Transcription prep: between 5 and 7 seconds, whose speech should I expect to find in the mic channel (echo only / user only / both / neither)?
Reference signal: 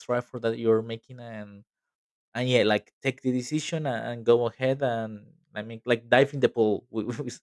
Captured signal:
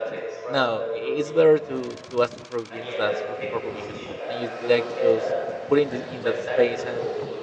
both